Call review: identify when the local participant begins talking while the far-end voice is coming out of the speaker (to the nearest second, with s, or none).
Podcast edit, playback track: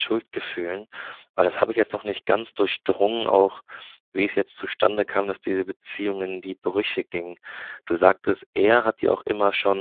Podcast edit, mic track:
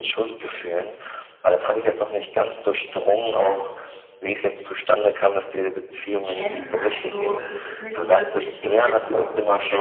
6 s